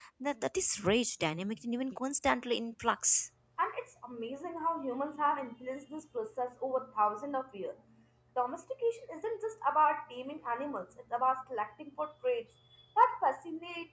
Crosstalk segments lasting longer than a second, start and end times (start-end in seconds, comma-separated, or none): none